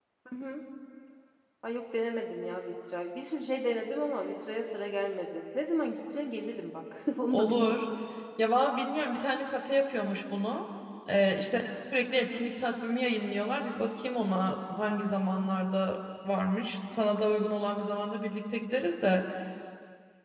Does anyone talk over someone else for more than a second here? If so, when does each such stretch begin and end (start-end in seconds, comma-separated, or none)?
none